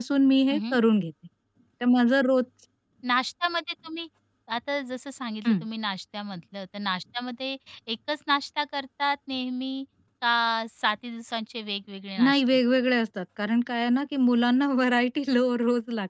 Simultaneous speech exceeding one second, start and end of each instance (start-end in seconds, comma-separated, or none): none